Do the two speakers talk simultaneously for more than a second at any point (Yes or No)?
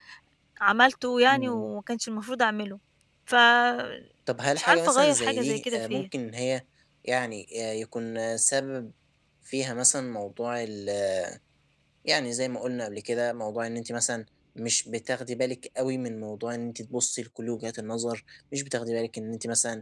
Yes